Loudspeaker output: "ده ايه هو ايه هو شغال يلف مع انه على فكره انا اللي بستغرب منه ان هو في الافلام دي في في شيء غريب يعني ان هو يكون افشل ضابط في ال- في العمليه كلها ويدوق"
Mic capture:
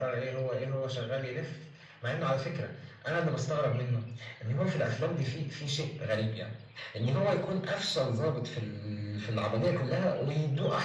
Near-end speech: none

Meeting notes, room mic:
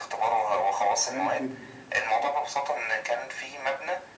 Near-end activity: present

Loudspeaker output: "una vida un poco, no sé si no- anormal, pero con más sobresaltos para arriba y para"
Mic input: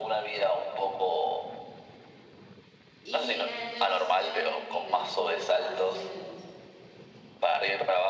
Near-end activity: present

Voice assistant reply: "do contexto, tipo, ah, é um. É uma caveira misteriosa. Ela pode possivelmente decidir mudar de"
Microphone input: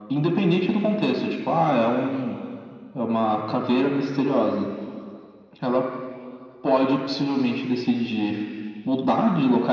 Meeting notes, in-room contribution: none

